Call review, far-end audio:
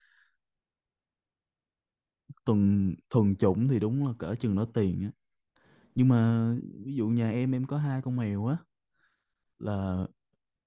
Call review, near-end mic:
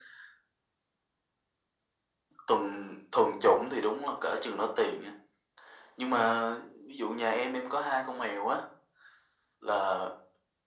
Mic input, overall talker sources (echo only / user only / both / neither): echo only